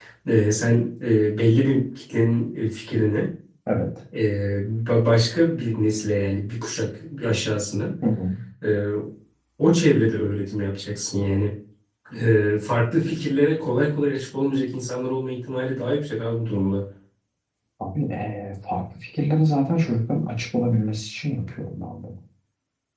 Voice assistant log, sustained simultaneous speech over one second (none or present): none